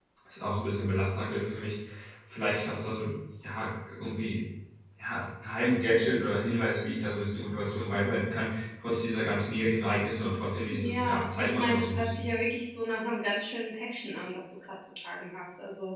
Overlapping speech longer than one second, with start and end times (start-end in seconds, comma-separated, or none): 10.7-12.3